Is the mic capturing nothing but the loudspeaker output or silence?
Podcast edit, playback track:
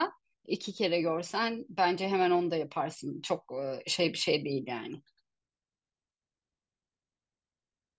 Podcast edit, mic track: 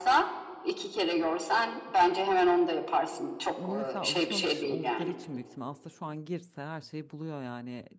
No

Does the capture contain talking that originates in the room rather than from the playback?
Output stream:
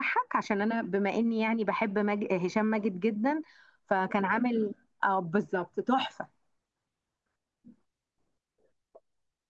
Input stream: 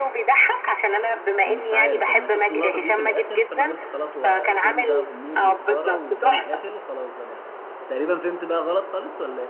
Yes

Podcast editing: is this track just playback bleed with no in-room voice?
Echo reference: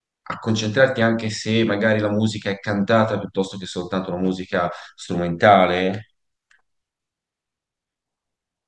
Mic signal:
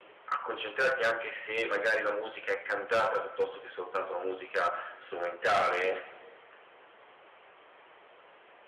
Yes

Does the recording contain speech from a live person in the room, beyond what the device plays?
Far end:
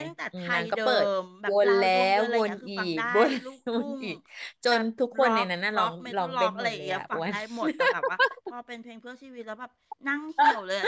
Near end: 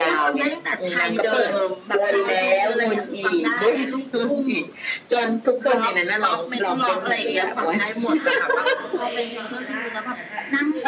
Yes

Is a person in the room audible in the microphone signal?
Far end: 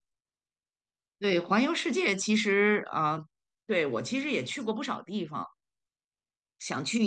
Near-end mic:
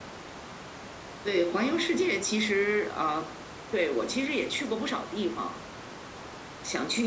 No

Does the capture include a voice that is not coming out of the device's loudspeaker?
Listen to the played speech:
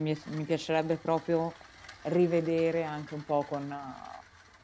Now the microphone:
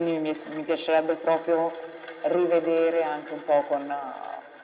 No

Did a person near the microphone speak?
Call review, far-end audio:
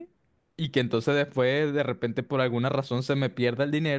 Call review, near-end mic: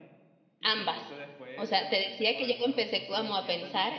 Yes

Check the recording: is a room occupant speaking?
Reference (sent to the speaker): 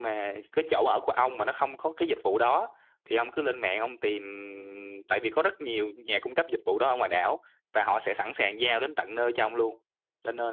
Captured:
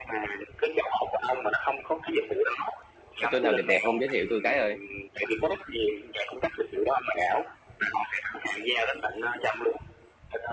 Yes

